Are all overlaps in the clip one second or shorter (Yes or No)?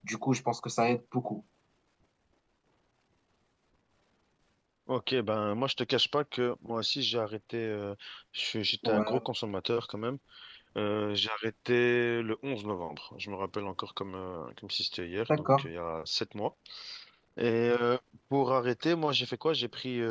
Yes